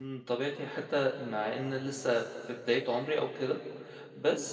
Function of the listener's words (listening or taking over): listening